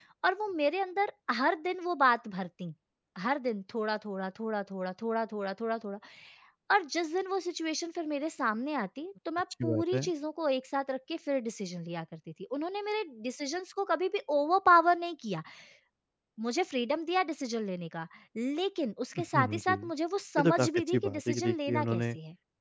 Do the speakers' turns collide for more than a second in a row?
Yes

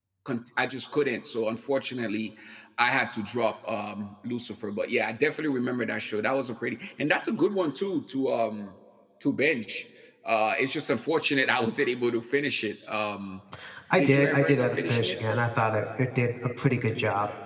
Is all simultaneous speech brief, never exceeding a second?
No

